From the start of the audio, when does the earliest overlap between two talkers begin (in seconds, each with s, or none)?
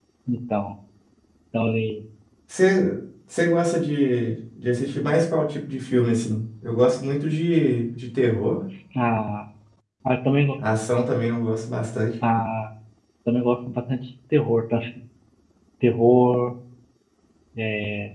none